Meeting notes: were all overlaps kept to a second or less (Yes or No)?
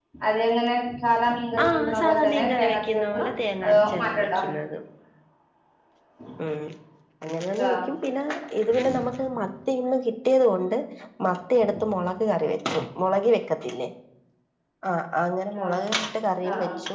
No